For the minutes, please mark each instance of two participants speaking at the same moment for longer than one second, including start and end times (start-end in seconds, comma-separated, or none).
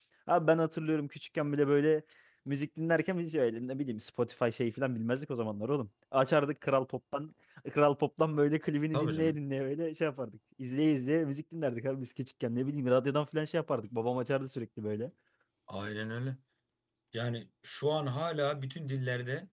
none